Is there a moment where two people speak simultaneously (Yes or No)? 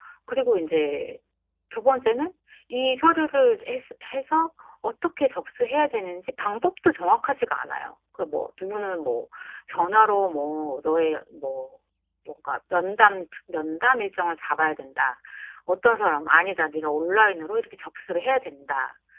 No